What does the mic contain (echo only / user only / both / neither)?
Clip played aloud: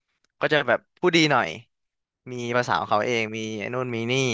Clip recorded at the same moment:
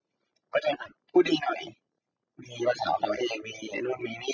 echo only